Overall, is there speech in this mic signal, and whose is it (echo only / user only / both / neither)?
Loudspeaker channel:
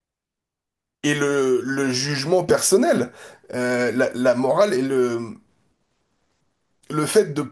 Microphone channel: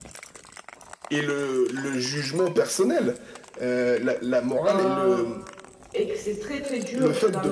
both